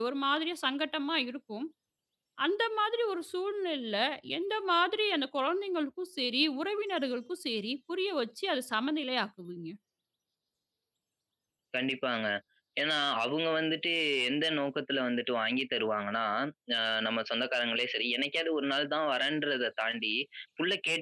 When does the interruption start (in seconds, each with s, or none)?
none